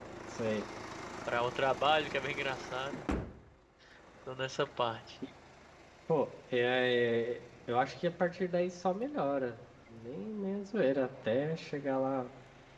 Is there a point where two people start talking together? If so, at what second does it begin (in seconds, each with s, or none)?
none